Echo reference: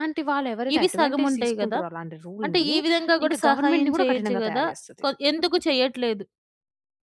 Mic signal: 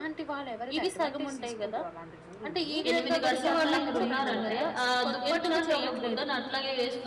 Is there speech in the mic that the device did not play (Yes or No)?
Yes